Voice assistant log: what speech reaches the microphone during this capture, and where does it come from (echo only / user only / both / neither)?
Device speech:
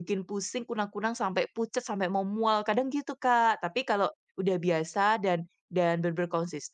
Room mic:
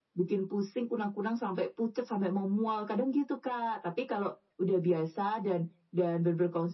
echo only